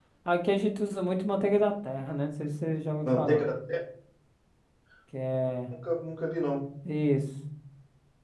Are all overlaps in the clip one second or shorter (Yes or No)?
Yes